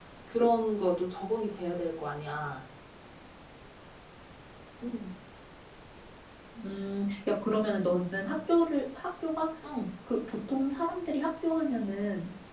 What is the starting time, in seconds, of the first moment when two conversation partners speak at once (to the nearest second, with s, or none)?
none